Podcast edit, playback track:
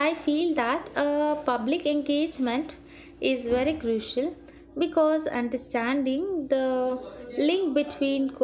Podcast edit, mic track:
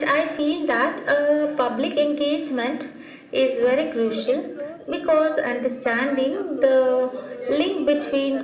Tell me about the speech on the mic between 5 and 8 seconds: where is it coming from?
both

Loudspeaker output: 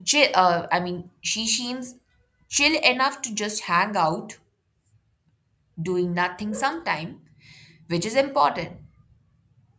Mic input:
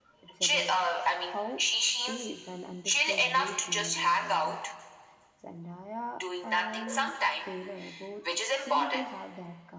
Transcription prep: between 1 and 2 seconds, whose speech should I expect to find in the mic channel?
both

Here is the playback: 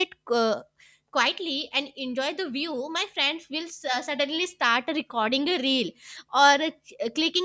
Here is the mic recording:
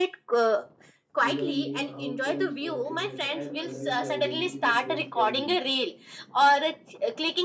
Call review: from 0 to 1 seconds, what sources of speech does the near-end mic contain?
echo only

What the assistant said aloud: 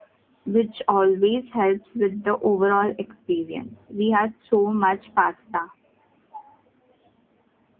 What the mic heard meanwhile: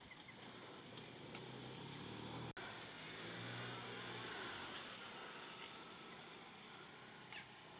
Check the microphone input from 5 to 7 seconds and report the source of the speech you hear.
neither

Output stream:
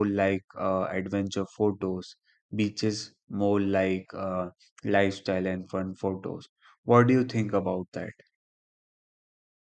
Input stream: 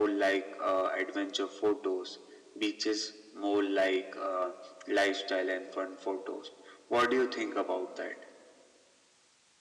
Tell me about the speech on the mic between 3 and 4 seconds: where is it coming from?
echo only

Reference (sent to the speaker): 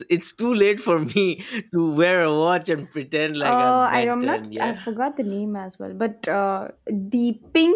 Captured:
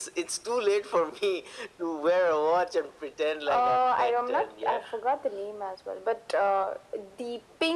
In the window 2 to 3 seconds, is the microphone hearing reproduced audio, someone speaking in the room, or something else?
echo only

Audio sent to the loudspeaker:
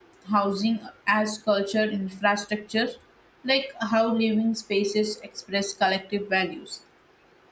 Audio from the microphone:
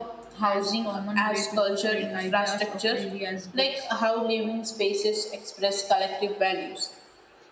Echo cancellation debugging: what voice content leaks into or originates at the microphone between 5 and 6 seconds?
echo only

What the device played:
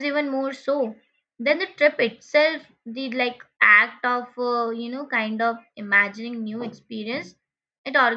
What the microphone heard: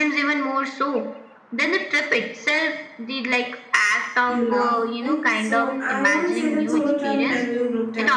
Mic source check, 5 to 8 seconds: both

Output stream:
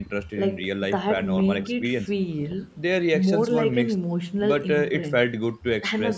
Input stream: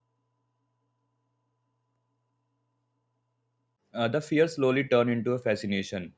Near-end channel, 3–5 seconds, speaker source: user only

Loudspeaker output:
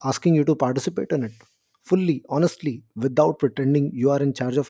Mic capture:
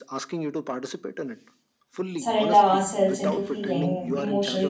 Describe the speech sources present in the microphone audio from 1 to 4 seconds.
both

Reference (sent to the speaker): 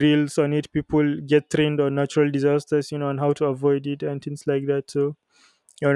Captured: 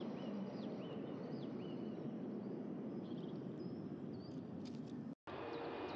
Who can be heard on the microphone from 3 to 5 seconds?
neither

